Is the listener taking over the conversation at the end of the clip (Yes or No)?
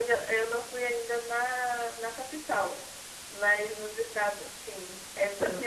No